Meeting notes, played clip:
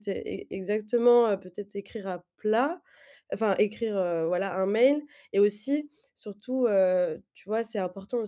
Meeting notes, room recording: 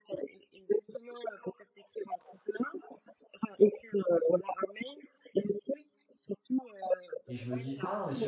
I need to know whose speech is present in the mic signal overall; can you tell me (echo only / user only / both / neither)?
both